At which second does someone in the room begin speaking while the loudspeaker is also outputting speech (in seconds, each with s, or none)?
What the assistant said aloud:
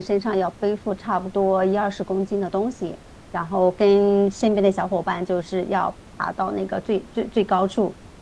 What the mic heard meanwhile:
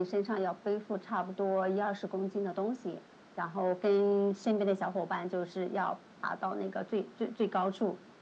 none